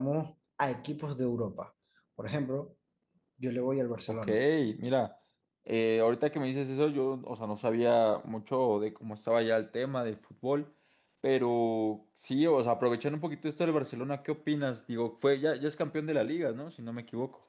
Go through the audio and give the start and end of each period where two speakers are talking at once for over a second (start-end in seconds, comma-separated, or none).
none